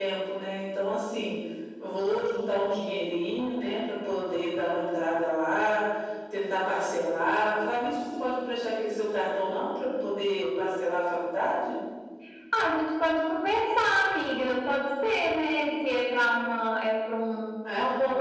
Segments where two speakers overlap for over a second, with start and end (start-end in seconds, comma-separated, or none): none